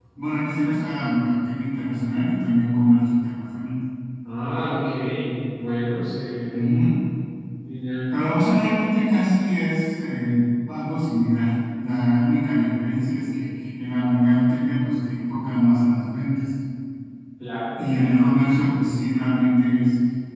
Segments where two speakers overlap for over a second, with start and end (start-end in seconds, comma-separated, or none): none